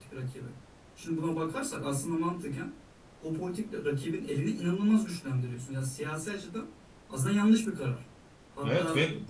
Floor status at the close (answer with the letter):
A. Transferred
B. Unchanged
A